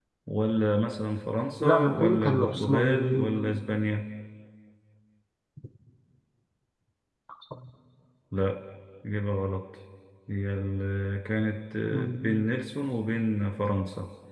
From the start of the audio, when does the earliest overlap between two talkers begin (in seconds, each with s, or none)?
1.6 s